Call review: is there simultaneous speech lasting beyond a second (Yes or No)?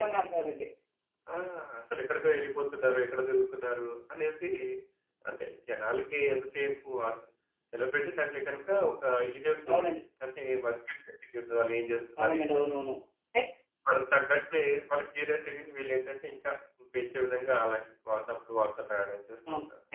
No